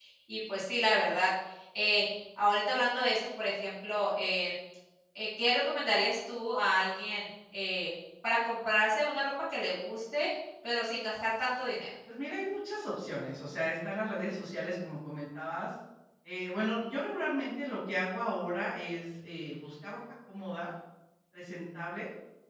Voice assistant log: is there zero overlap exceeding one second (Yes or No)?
Yes